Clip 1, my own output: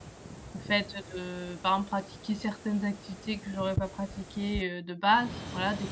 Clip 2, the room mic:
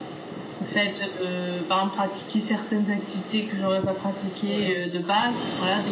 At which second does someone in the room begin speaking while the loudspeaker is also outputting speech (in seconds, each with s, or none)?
4.5 s